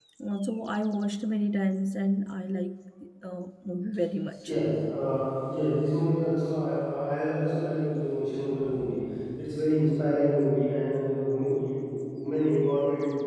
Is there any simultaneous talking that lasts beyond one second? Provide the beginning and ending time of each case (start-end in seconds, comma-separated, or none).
none